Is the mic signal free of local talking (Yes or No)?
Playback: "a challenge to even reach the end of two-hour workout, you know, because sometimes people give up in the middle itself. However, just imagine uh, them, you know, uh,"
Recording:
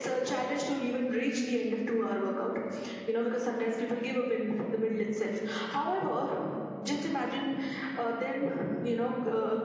Yes